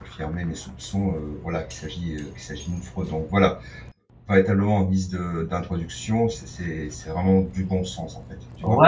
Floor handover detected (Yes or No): Yes